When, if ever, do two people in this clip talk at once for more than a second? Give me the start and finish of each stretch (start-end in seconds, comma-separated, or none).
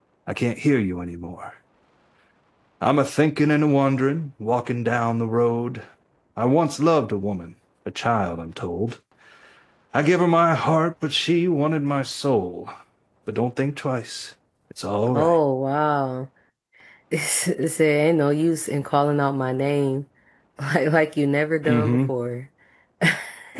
none